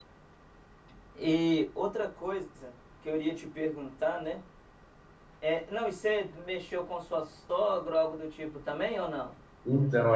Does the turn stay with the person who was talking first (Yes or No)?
No